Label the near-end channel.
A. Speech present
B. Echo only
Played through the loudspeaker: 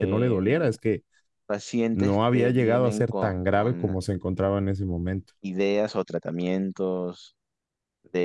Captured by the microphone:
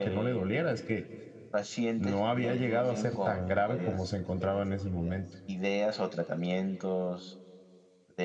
A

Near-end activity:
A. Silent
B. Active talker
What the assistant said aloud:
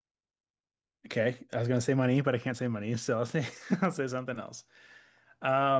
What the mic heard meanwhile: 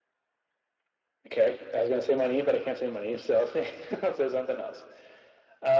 A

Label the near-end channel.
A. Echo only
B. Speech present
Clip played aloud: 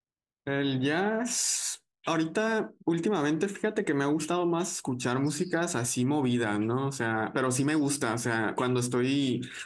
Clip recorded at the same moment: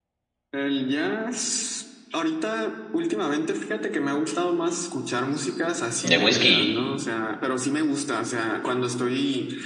B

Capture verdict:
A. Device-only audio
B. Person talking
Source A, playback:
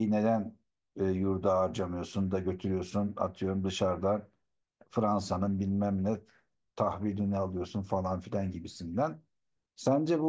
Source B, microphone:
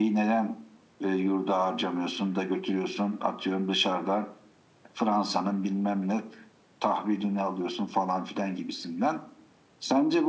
A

